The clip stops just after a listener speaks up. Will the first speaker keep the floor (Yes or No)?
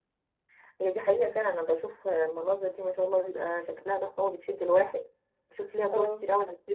Yes